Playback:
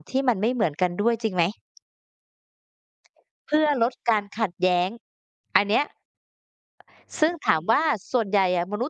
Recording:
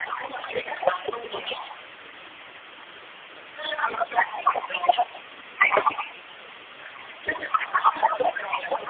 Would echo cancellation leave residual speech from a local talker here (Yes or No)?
No